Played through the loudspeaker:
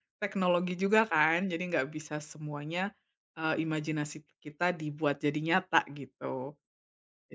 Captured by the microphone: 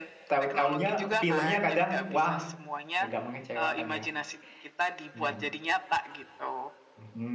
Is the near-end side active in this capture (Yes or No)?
Yes